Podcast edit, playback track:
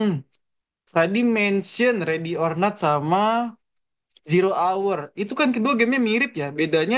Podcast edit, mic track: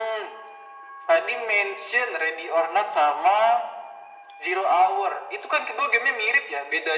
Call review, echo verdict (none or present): present